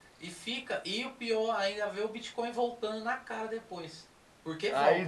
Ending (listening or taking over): taking over